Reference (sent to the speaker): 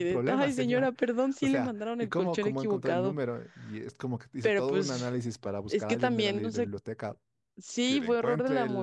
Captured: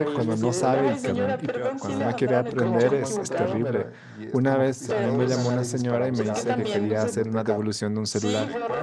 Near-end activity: present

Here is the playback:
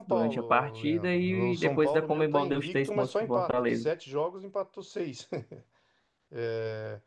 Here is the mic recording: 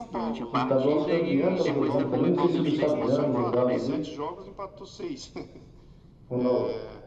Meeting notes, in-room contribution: present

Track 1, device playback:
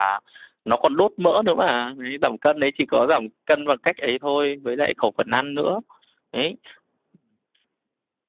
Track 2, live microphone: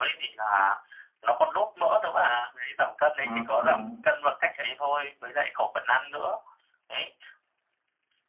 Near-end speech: present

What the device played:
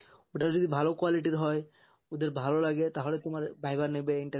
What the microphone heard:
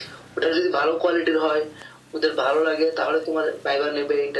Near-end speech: none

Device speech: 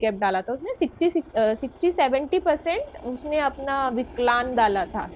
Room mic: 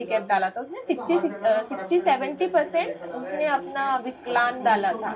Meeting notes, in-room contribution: present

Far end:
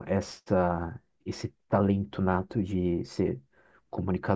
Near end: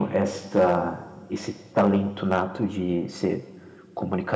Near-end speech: none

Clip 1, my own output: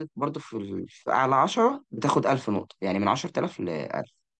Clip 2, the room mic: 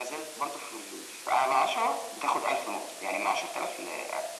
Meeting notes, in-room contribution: none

